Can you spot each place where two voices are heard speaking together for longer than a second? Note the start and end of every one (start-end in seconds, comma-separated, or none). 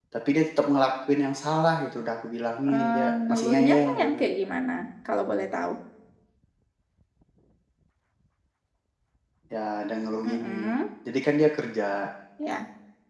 2.7-4.2